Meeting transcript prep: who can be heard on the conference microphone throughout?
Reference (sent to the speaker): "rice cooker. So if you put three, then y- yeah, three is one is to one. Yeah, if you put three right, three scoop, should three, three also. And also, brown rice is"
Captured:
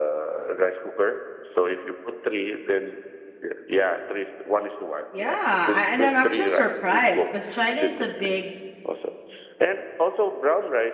both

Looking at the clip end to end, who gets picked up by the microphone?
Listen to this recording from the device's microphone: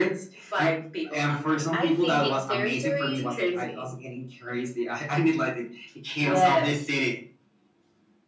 both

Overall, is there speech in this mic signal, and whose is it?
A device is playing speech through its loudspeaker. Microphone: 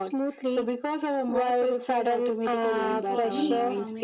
both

